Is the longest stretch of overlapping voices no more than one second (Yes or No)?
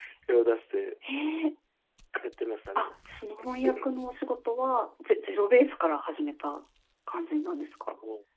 Yes